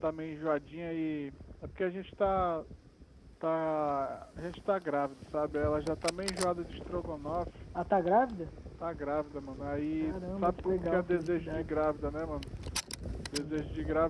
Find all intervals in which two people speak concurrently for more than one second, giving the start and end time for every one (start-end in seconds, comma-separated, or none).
10.0-11.8